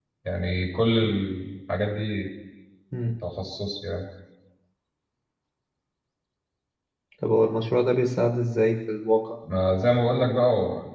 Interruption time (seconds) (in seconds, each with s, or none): none